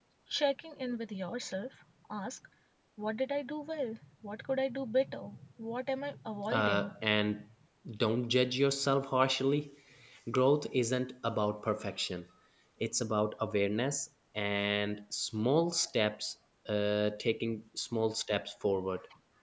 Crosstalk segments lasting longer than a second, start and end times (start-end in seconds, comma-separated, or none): none